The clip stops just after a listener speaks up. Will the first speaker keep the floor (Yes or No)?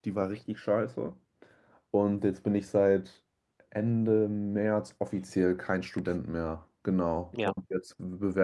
Yes